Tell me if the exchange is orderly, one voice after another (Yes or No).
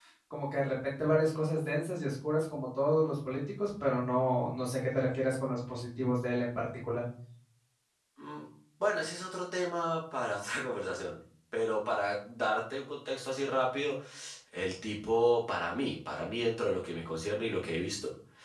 Yes